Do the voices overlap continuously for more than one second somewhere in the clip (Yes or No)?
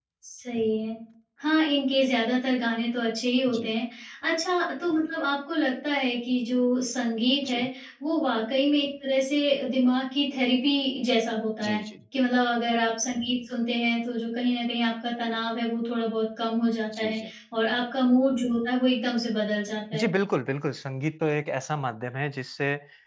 No